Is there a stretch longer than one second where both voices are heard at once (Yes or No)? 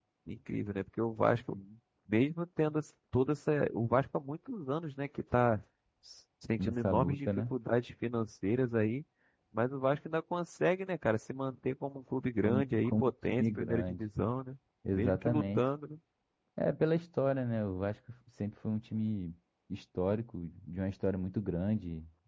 Yes